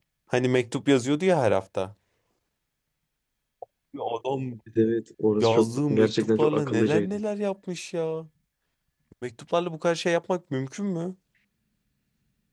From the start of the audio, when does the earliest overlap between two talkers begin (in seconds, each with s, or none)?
5.4 s